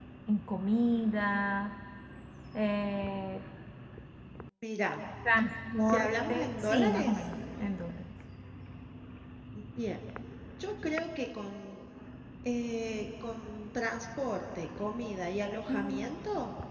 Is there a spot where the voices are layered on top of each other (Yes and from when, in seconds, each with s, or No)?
Yes, from 5.9 s